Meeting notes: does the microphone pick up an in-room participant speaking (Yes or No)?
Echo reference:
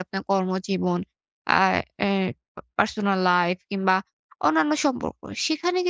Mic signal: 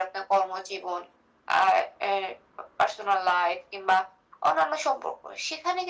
No